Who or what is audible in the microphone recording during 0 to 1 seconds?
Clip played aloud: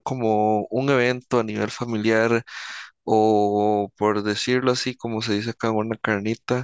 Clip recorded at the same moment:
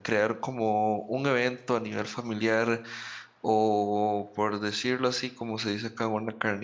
echo only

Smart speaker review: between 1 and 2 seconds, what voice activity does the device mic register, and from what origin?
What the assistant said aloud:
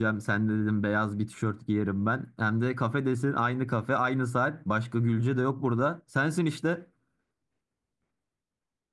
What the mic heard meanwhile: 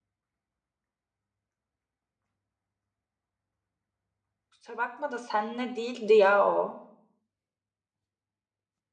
neither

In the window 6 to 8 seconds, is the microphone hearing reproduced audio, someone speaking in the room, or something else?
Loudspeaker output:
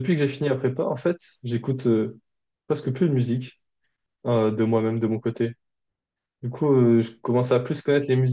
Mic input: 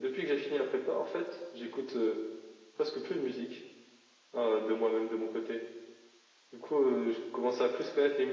echo only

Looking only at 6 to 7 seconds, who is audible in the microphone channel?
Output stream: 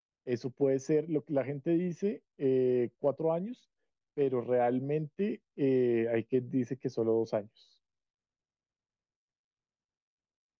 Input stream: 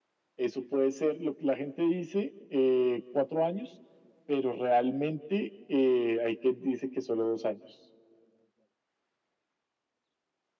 echo only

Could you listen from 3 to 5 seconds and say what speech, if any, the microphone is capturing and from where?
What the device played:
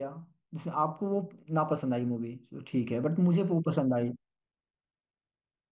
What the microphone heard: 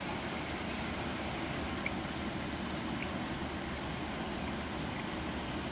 neither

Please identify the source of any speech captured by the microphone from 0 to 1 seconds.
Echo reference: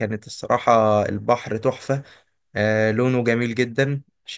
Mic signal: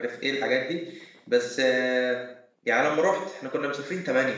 user only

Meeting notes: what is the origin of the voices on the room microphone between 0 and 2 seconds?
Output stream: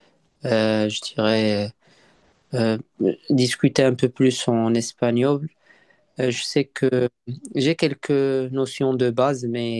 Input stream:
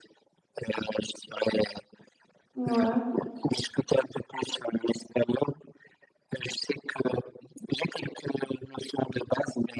echo only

